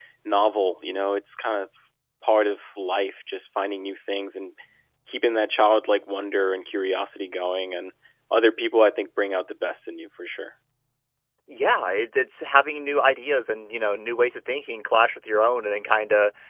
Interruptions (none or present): none